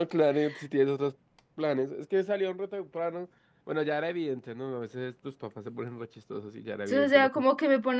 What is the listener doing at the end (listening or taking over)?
taking over